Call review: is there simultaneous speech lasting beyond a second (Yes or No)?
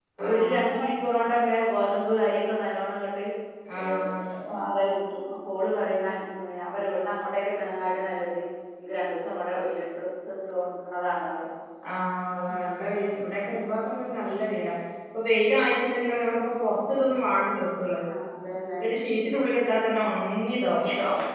No